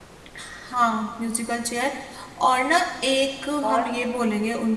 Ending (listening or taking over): listening